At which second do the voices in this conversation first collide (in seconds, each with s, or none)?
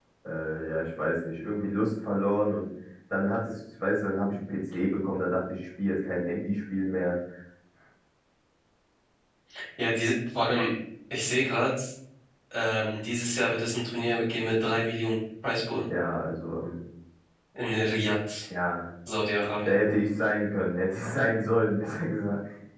none